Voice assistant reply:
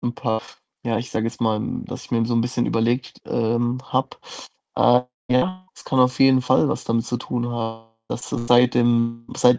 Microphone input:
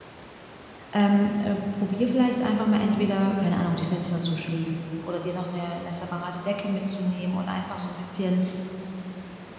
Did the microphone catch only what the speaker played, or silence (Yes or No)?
No